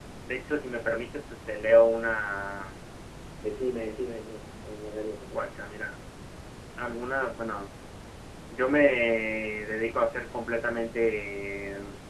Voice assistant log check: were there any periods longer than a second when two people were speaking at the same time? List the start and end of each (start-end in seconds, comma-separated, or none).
none